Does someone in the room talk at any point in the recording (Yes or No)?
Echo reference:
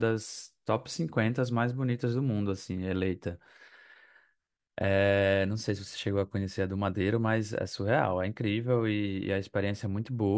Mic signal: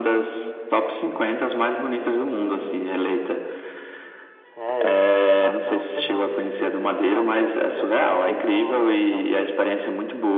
Yes